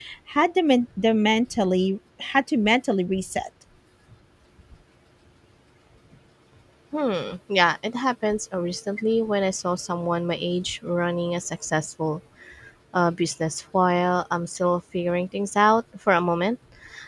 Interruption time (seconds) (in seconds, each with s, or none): none